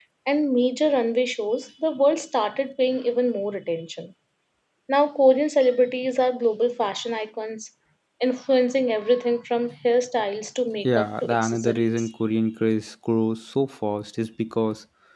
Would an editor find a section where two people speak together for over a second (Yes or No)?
Yes